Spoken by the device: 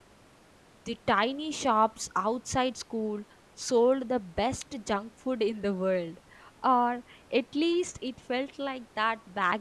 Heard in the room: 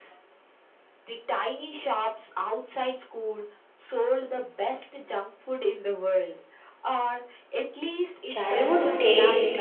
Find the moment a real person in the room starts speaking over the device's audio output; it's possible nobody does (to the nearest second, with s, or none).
8 s